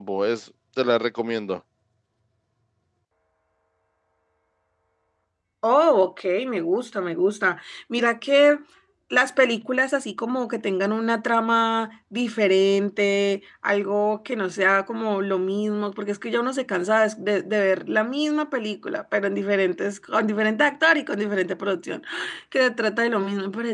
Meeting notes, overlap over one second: none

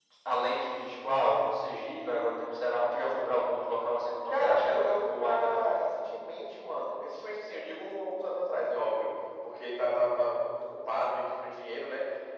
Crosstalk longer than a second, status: present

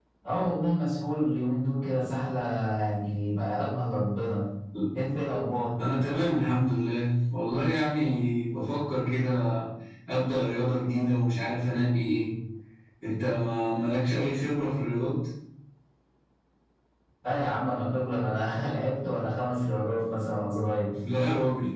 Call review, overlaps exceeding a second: none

